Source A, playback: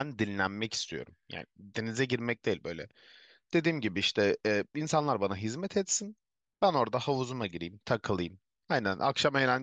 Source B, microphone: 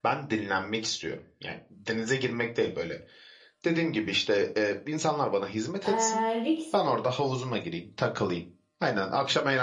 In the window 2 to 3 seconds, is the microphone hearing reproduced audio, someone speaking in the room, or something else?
echo only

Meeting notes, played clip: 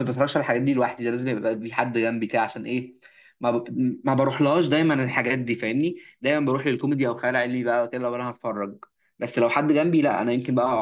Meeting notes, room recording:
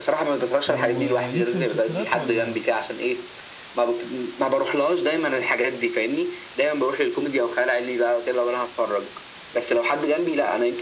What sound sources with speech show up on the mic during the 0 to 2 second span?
both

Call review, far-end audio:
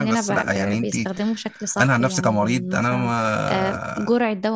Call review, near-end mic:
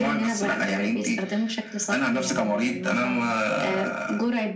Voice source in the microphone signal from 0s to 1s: echo only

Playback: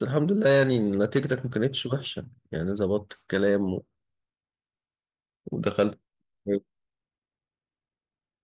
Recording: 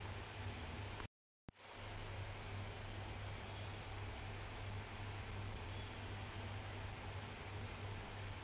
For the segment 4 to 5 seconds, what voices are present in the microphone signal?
neither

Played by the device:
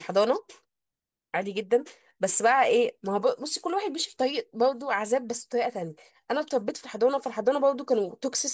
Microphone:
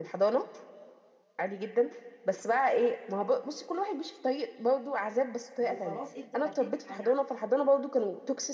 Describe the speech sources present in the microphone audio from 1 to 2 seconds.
echo only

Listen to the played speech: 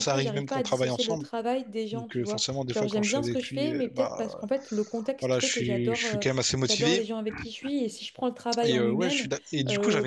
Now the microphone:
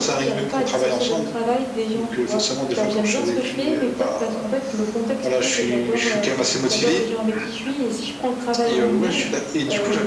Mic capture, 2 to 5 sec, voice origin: echo only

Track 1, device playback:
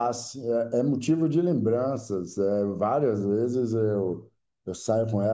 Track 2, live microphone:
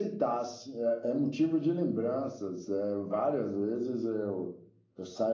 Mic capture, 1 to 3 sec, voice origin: echo only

